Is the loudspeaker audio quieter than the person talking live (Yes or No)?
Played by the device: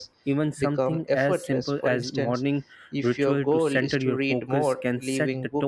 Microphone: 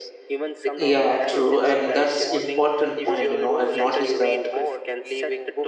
Yes